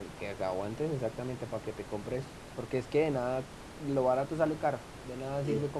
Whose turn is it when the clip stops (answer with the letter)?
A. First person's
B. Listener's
A